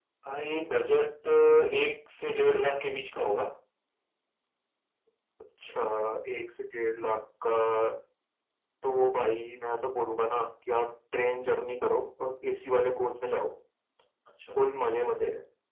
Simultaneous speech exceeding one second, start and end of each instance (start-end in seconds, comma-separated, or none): none